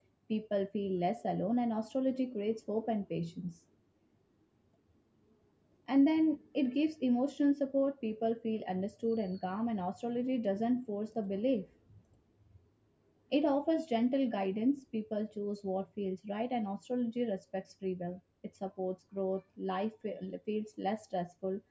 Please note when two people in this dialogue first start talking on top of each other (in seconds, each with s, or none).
none